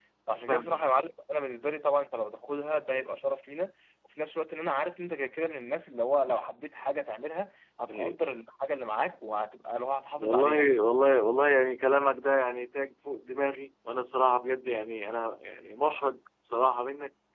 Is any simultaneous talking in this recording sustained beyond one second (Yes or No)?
No